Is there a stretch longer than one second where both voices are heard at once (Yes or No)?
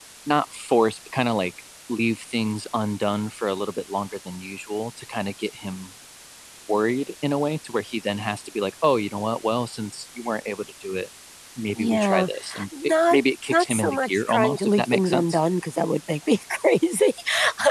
Yes